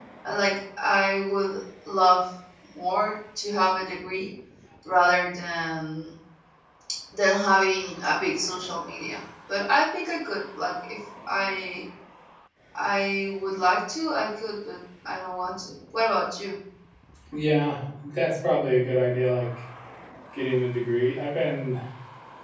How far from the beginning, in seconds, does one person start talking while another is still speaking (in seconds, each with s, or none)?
none